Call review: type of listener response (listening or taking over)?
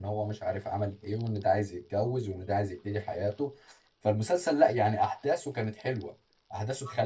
listening